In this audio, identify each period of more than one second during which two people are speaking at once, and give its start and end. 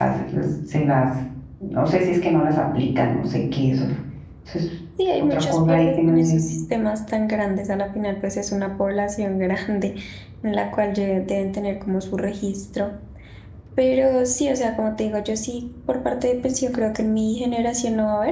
5.2-6.4

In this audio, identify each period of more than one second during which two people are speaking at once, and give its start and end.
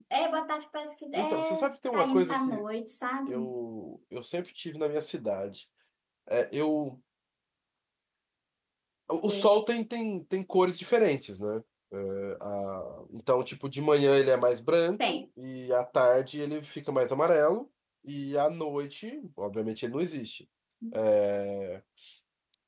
1.2-2.6

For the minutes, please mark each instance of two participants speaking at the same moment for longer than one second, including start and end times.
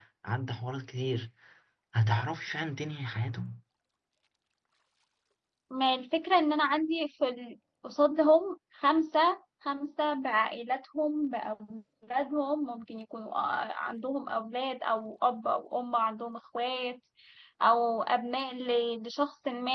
none

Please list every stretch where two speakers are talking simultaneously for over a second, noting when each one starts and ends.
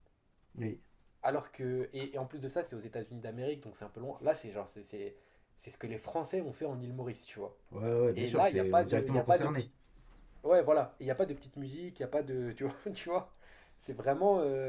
8.2-9.7

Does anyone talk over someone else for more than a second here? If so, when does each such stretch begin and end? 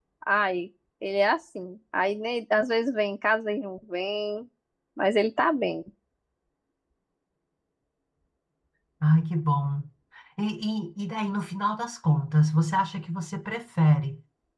none

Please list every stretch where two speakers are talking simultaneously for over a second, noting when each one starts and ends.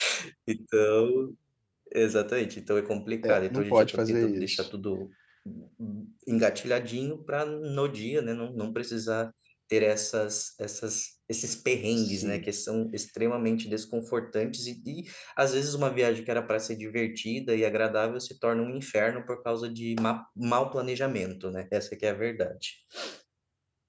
3.2-4.7

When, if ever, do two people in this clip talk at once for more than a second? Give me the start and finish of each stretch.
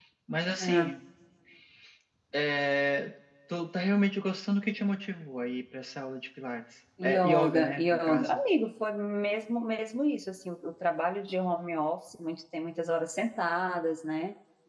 7.0-8.4

